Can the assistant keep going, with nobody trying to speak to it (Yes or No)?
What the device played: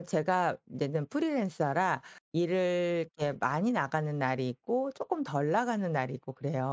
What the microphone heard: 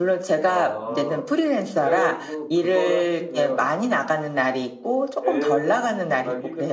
No